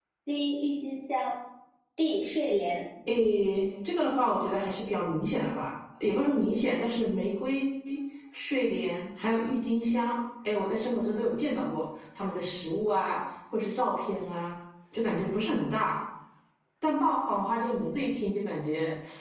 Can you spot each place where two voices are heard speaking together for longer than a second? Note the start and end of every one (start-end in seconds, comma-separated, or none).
none